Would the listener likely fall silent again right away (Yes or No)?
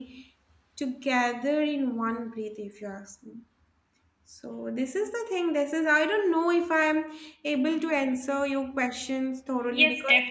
No